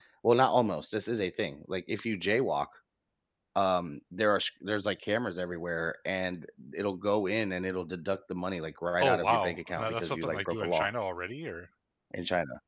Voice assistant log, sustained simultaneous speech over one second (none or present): present